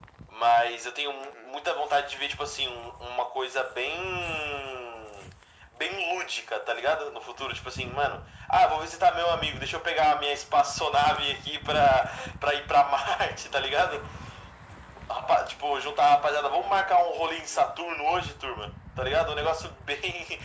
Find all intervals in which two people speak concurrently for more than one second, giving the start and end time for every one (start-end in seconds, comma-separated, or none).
16.4-17.7